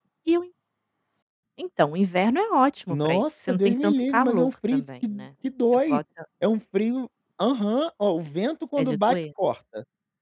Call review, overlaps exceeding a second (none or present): present